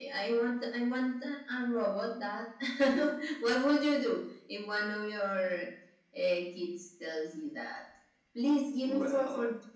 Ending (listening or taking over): listening